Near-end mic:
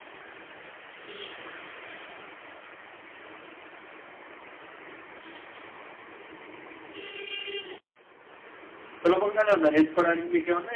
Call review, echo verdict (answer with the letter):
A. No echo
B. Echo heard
A